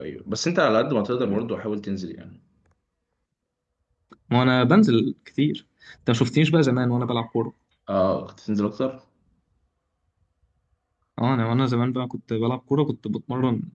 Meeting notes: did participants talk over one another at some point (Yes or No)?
No